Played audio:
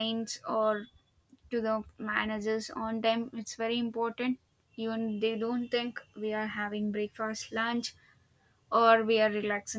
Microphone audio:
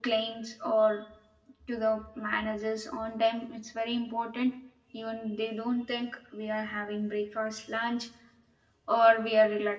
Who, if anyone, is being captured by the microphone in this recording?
echo only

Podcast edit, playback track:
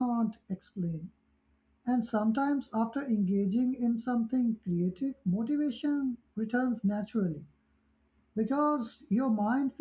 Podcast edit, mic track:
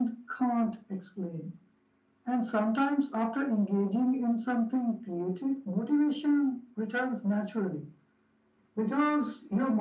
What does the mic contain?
echo only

